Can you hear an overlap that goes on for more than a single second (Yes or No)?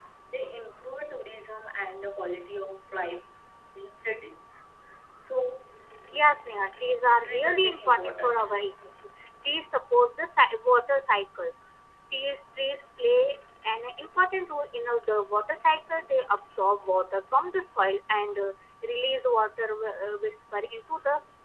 Yes